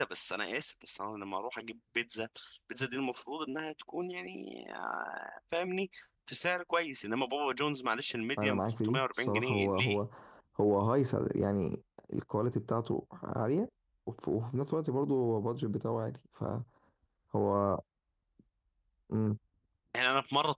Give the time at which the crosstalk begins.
8.4 s

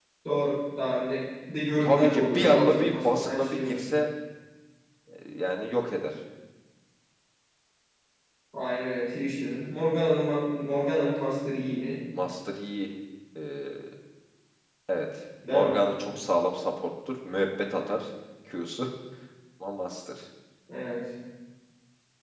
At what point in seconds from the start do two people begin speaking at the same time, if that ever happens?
1.8 s

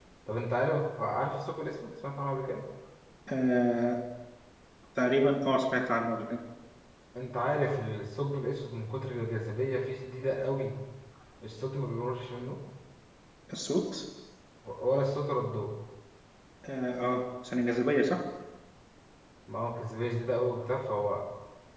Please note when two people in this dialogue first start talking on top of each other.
none

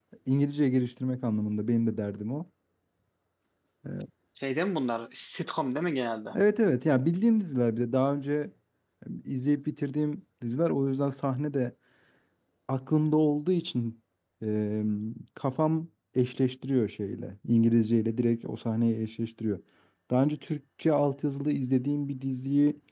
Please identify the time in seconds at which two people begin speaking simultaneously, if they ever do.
none

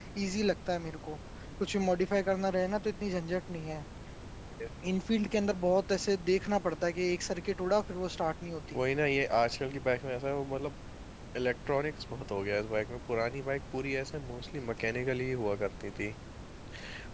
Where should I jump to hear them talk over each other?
none

